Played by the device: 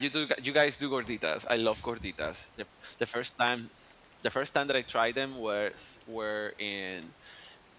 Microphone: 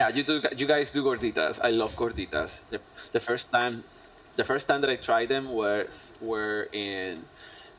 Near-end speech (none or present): none